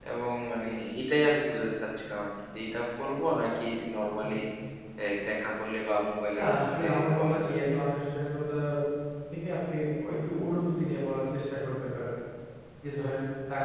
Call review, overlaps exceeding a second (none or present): present